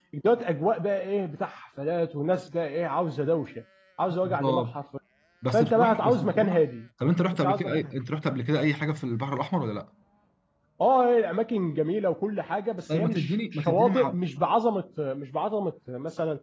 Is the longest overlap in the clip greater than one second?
Yes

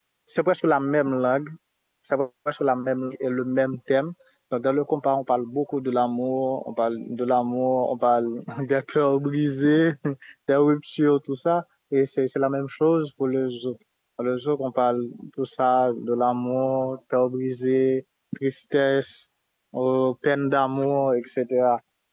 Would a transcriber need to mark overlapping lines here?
No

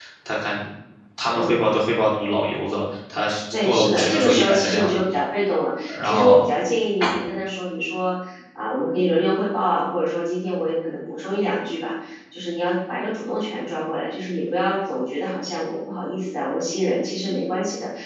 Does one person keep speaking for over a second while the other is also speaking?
Yes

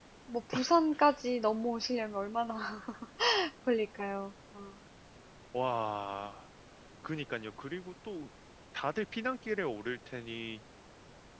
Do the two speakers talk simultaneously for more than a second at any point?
No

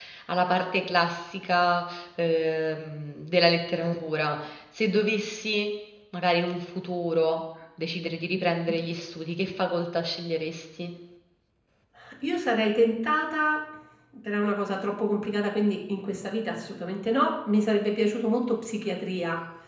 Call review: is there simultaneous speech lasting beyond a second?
No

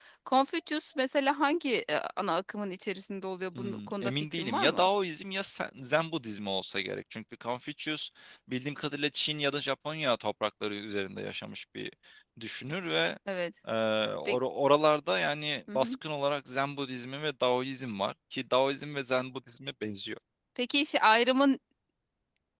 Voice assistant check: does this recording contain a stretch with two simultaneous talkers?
Yes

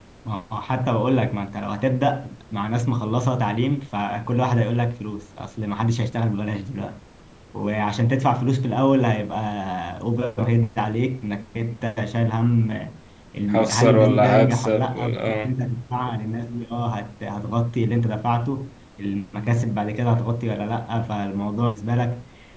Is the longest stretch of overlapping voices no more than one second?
No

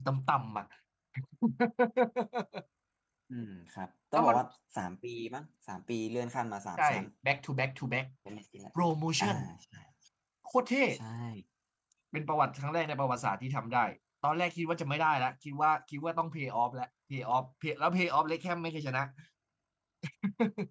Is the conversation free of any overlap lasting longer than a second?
Yes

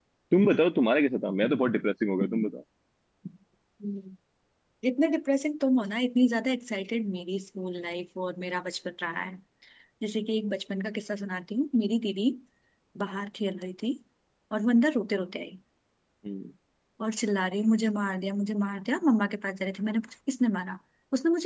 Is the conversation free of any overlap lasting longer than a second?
Yes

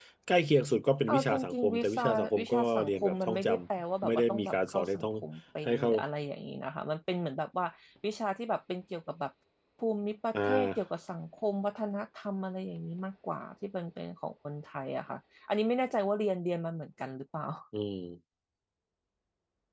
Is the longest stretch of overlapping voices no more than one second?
No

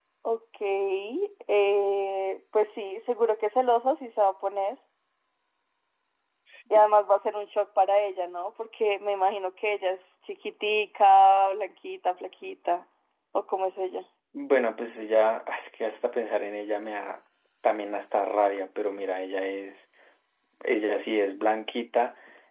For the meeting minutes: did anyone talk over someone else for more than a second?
No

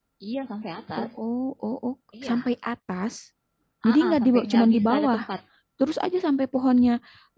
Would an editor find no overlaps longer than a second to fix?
No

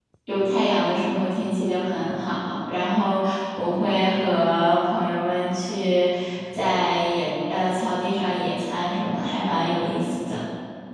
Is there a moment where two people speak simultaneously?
No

